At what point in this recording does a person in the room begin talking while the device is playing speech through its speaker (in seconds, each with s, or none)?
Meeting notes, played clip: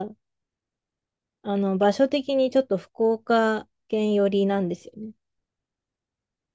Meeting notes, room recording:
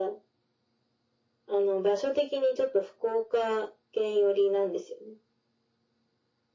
none